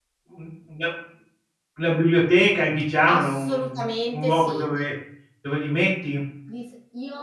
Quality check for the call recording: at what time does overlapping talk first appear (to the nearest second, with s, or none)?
3 s